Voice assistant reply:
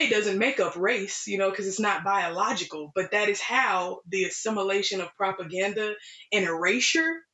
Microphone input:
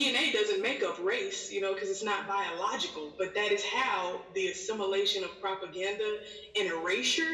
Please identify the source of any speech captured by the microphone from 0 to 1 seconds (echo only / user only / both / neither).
echo only